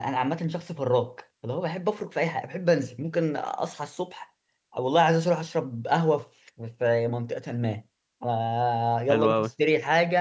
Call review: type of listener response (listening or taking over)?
listening